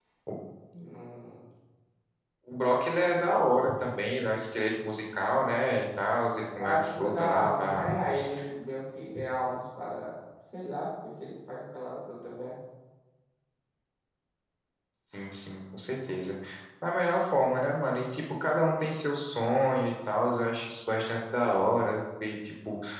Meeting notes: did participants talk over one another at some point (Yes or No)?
Yes